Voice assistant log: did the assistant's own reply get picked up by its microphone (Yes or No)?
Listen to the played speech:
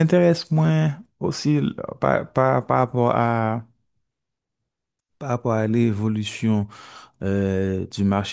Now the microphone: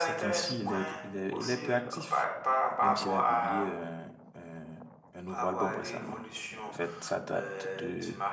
Yes